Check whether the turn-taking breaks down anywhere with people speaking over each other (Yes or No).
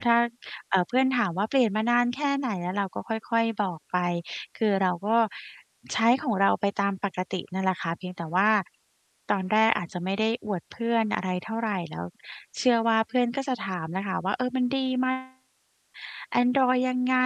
No